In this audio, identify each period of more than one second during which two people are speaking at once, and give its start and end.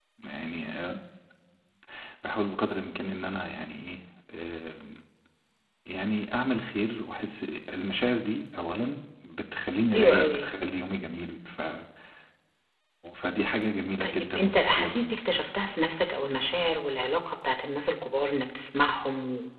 14.0-15.5

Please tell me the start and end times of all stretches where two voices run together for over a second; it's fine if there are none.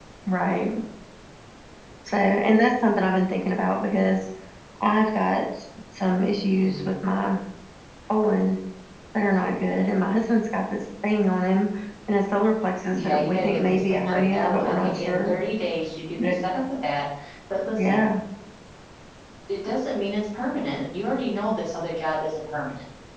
12.9-15.4

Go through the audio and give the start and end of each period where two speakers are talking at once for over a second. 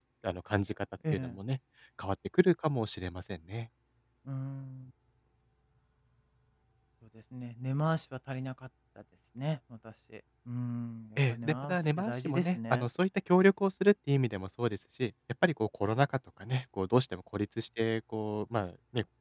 11.3-12.8

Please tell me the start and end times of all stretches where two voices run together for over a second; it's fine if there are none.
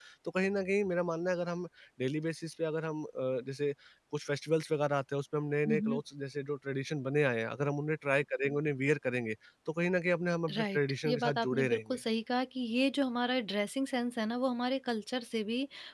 10.6-12.0

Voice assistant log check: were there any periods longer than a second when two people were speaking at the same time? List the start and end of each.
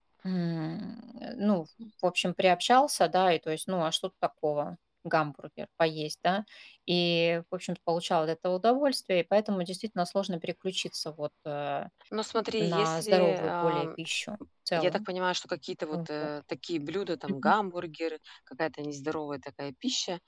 12.6-13.9

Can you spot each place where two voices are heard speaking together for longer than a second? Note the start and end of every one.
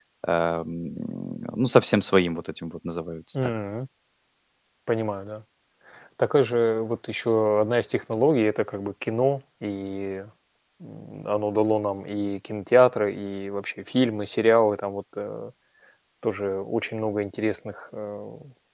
none

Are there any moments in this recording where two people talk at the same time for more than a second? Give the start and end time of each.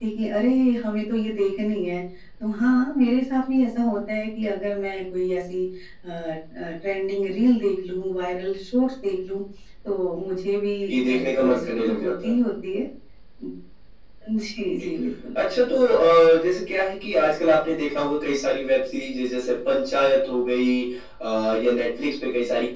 10.9-12.4

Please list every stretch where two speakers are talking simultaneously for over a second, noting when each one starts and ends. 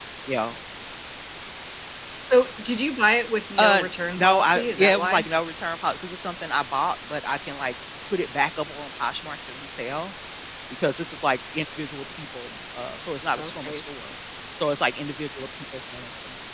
3.6-5.3

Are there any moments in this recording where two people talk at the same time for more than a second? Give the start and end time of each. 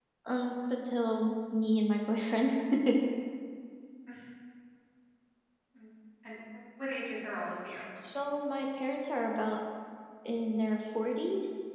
none

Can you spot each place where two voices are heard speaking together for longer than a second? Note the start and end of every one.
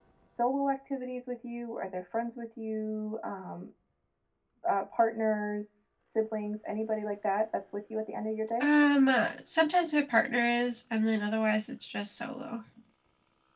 none

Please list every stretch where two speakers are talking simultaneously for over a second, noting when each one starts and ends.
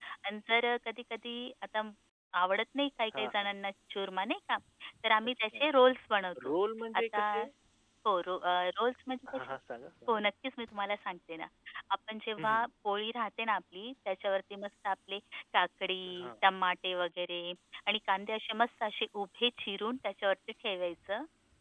none

